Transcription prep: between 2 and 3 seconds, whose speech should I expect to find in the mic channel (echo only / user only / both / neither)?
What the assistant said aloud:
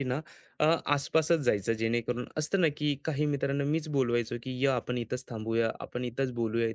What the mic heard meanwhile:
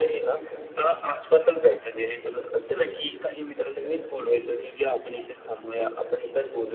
echo only